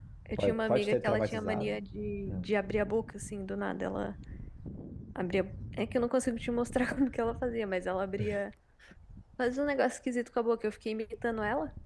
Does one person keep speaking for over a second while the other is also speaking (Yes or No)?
Yes